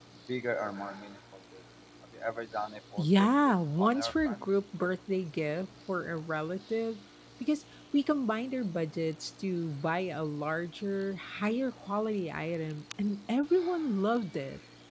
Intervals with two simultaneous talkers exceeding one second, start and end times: 3.0-4.4

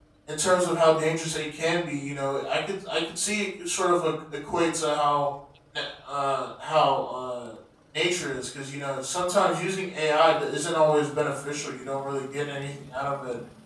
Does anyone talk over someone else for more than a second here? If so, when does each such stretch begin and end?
none

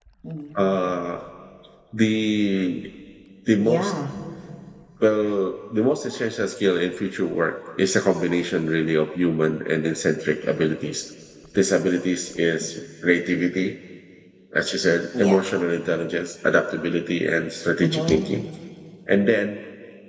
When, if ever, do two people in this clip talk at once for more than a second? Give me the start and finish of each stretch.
none

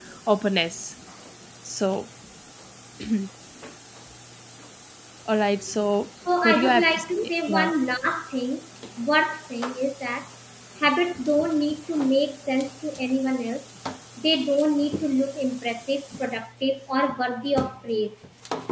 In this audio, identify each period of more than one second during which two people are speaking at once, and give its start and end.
6.4-7.7

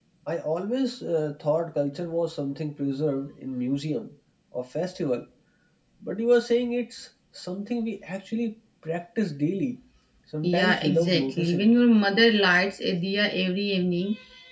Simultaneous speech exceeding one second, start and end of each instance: 10.4-11.7

